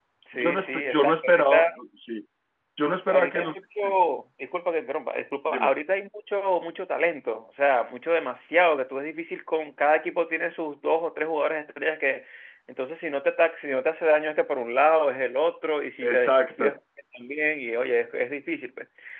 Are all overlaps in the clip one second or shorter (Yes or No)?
No